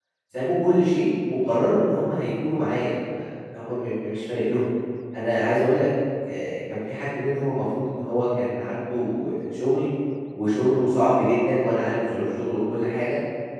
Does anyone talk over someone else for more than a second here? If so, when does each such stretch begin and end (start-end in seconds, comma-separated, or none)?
none